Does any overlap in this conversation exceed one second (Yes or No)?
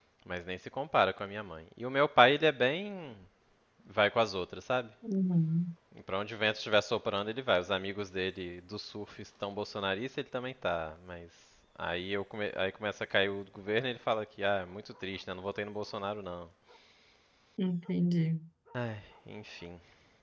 No